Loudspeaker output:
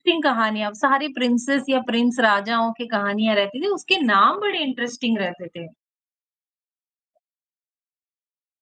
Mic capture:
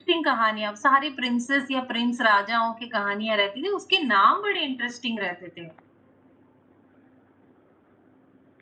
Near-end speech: none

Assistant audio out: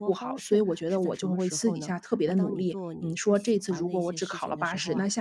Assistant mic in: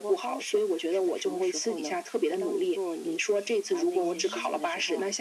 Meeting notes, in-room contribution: present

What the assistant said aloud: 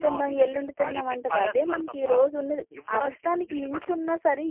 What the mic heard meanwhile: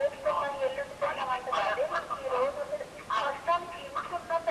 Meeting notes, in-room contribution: none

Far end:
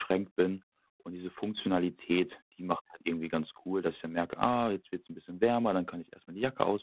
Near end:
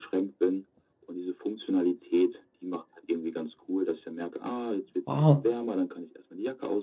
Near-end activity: present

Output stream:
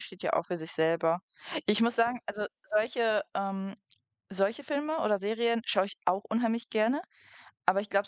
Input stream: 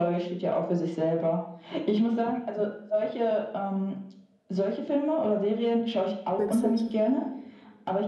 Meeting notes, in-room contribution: present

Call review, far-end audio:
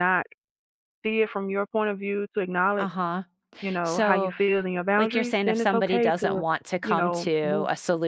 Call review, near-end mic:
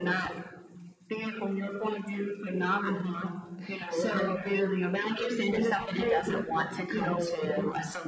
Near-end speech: none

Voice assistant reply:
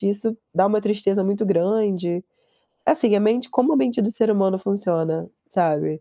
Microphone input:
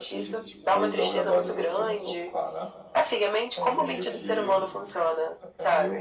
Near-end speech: present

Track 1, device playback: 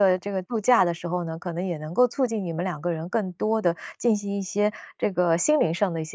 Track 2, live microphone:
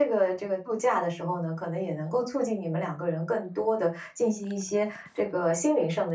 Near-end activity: none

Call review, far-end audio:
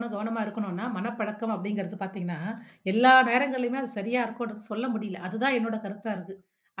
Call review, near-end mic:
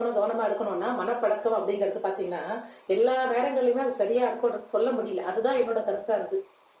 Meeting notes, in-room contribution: none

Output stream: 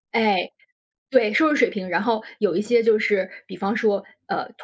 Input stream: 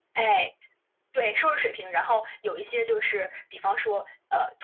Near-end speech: none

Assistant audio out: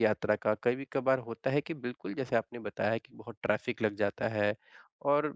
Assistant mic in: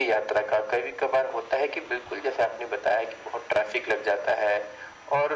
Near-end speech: none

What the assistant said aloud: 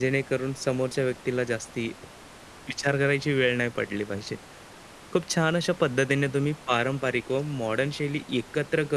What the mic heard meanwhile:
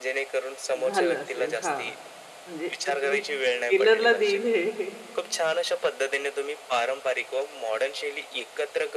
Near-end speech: present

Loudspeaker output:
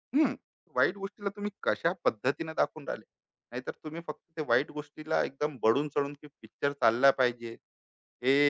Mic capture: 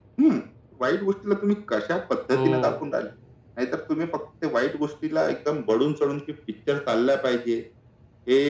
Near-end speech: present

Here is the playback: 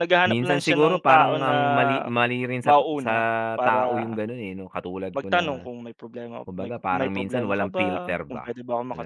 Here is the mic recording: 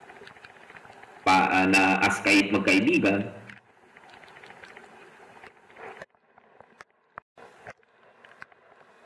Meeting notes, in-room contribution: present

